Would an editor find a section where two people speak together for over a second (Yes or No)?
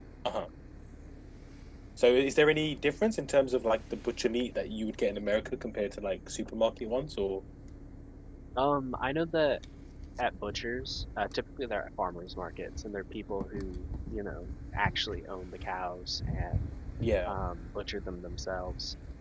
No